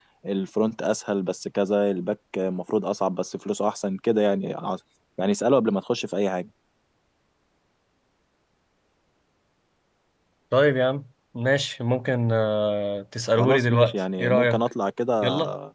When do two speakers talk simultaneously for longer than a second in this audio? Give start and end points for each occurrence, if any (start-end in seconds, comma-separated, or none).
13.3-14.7